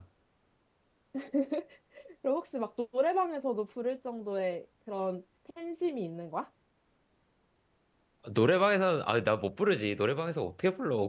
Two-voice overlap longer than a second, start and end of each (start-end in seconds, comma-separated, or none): none